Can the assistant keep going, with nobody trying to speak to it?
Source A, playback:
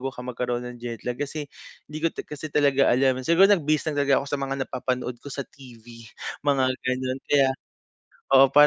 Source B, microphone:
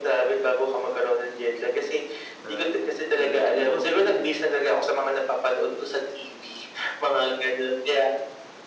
No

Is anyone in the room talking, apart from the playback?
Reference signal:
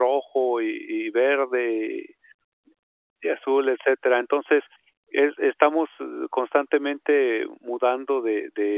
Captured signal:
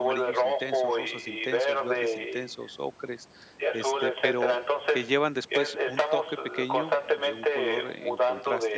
Yes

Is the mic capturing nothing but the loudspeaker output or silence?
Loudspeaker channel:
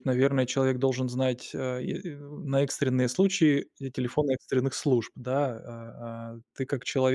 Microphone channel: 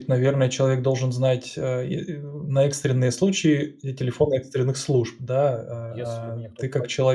No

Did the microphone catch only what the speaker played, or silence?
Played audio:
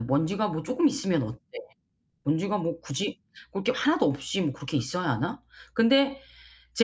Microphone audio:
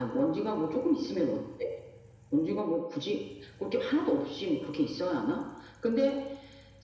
No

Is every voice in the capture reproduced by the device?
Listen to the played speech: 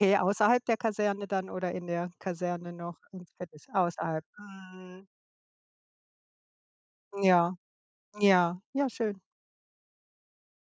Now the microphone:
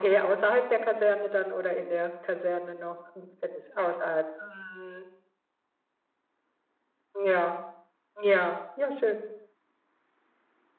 Yes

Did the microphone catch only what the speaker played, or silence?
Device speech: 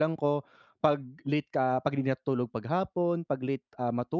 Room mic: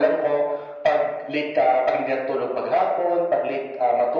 Yes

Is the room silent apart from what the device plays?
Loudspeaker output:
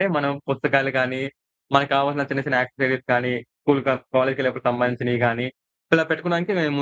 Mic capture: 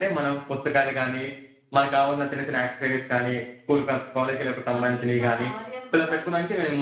No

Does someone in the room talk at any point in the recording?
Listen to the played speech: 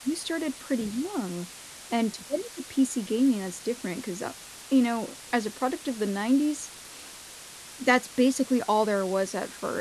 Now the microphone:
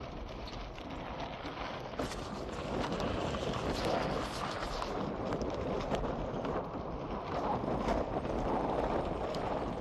No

